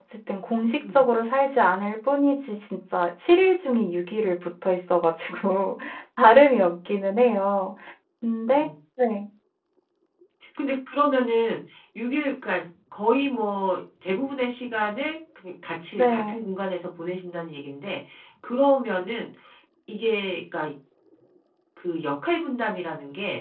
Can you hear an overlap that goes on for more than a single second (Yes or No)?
No